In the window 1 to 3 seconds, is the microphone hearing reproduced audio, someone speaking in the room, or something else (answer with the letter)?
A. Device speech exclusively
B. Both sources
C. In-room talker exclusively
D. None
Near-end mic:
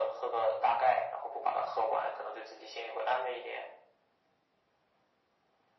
A